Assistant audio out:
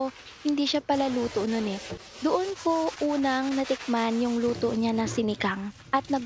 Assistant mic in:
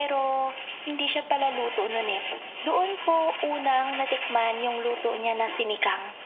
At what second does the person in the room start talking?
none

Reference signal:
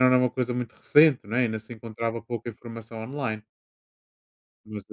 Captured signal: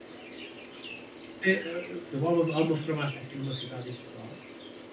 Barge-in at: 1 s

